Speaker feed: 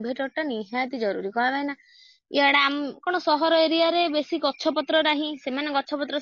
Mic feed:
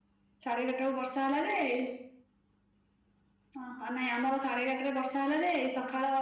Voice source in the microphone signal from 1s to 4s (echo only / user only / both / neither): user only